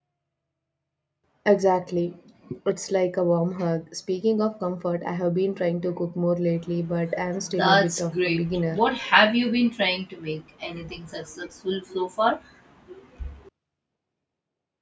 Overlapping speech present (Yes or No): Yes